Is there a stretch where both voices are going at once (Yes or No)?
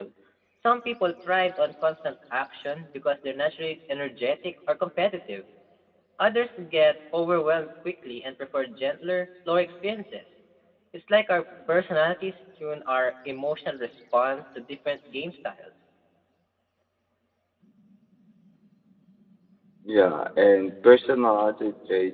No